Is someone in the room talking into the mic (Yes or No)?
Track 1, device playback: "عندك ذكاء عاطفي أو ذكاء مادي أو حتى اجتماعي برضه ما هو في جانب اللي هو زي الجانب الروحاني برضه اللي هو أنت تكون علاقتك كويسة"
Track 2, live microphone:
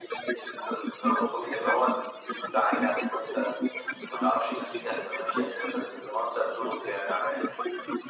Yes